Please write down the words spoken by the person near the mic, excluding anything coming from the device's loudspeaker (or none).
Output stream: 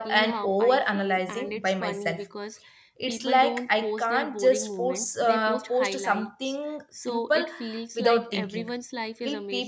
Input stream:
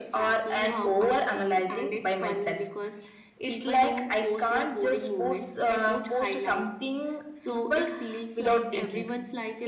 none